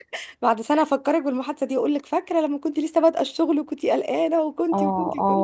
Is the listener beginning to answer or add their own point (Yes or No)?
Yes